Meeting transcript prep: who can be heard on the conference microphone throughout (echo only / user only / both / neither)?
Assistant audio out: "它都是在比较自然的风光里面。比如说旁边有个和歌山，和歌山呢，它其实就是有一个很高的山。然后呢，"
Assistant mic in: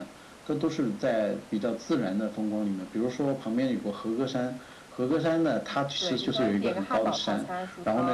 both